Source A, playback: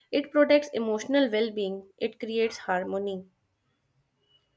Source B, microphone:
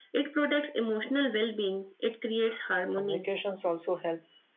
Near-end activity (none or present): present